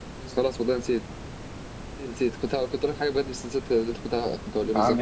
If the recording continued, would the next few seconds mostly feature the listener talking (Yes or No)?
Yes